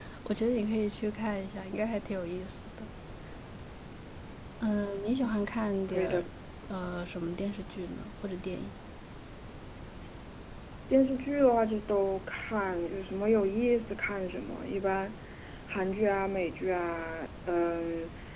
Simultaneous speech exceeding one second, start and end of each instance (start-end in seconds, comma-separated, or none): none